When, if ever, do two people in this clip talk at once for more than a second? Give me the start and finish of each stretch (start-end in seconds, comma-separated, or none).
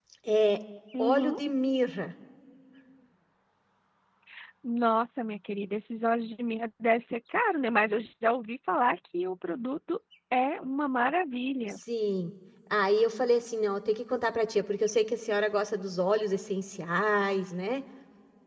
none